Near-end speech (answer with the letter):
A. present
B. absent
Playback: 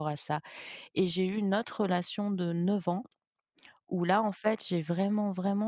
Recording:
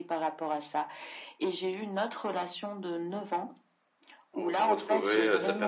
A